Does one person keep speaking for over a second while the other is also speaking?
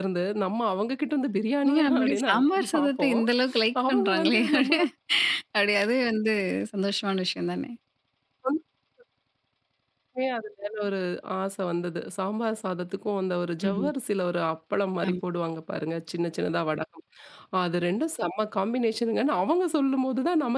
Yes, from 1.6 s

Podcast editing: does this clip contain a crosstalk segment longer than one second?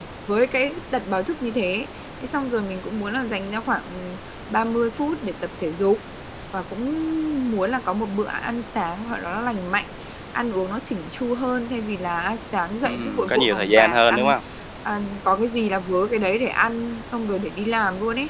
Yes, from 12.8 s

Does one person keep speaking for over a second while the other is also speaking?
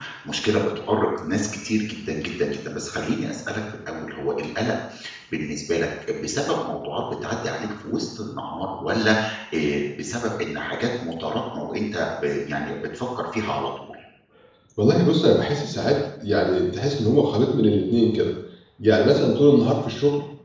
No

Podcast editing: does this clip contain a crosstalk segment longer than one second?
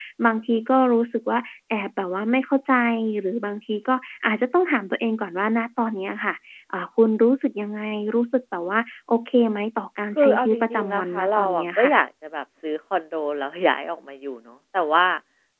Yes, from 10.2 s

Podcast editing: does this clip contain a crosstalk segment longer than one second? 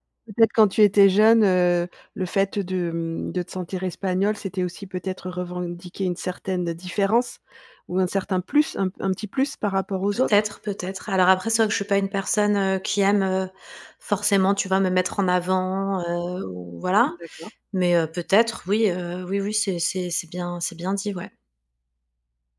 No

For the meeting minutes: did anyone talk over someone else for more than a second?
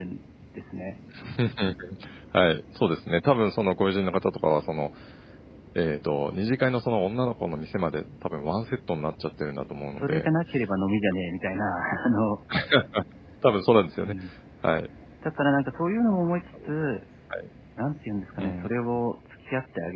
No

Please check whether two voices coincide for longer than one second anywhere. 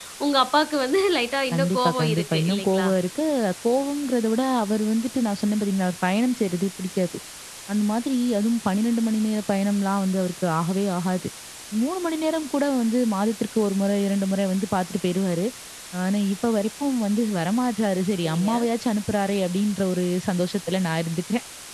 Yes, from 1.5 s

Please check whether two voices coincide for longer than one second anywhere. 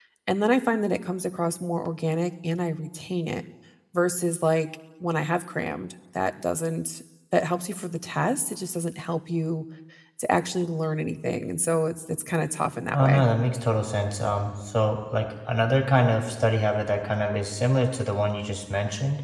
No

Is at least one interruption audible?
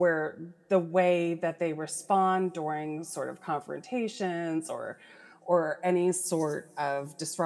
No

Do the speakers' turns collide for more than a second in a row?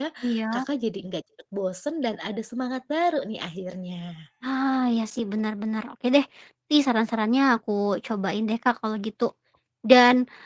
No

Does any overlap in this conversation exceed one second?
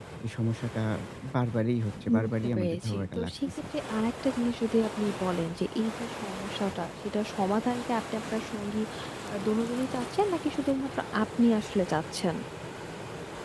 Yes, from 2.2 s

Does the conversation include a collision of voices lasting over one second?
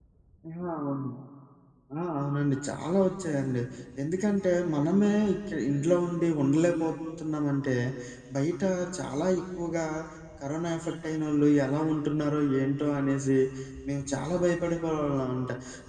No

